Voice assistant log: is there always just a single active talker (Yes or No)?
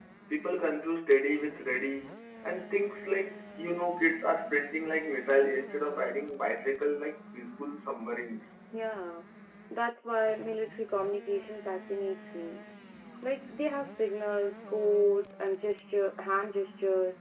Yes